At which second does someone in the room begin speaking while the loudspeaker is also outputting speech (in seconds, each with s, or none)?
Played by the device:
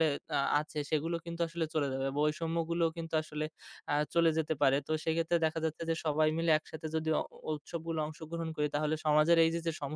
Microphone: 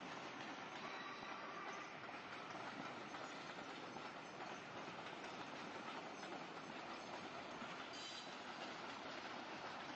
none